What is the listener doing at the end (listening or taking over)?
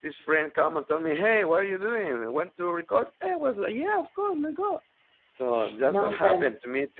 taking over